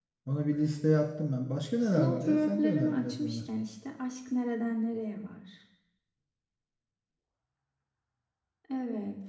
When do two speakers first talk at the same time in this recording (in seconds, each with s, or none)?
2.0 s